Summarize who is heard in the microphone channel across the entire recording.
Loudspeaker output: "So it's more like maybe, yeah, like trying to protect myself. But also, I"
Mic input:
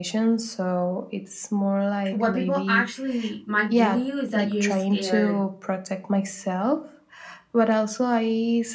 both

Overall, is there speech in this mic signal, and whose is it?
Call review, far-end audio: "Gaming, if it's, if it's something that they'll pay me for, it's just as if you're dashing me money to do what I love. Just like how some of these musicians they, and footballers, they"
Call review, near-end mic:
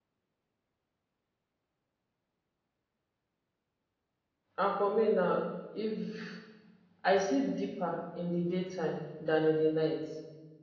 user only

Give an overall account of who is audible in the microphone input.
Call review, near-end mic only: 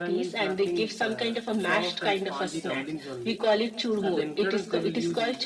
both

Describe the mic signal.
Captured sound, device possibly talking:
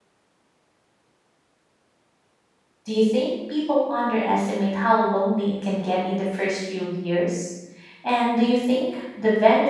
user only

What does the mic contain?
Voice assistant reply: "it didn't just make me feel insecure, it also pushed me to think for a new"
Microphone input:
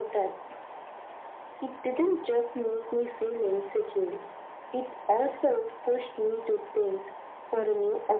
echo only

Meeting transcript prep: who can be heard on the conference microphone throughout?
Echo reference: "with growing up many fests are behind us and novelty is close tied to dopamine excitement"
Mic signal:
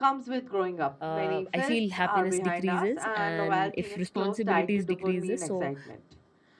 both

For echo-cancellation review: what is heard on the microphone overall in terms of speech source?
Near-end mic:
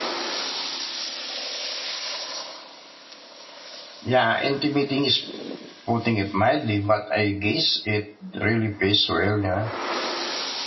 user only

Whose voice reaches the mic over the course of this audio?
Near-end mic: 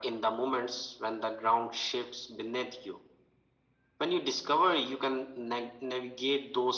echo only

